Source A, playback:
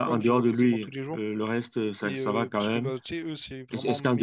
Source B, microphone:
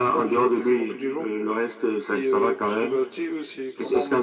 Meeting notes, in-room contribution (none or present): none